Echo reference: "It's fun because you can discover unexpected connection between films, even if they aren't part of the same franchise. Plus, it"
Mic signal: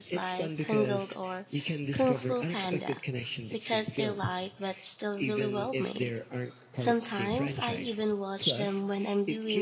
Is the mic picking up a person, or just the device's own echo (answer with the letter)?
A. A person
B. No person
A